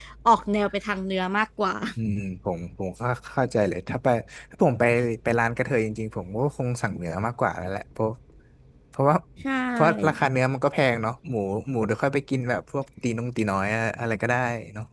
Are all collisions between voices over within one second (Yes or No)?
Yes